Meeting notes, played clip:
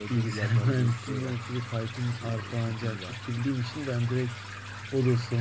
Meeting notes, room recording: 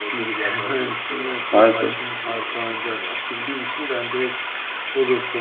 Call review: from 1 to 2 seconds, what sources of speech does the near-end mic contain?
both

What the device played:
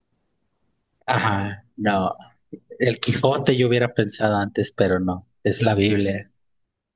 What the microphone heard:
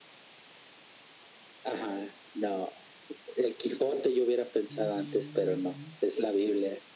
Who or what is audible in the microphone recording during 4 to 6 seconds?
both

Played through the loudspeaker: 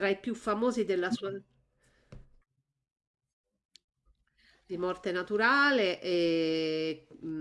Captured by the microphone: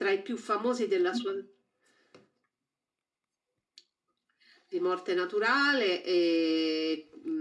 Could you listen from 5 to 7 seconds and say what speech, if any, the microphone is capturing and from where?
echo only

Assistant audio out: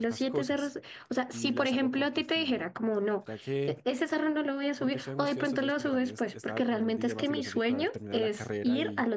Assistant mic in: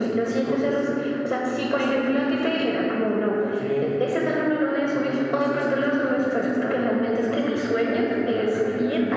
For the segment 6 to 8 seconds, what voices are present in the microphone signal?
echo only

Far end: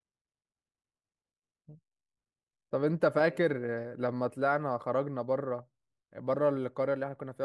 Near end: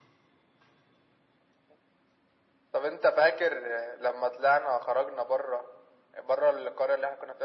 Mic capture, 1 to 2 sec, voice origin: neither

